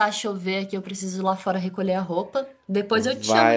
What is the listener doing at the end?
taking over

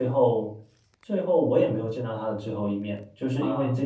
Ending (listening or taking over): listening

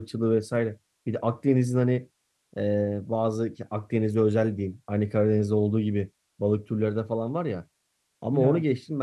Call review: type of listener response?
listening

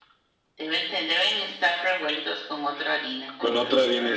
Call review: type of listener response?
taking over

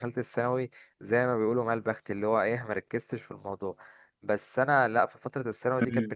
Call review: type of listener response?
listening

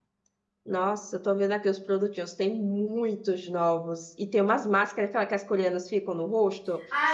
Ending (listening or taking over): taking over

